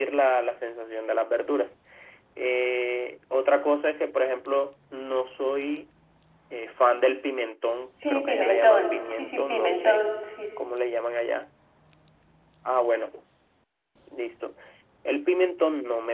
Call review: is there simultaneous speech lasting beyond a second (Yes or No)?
Yes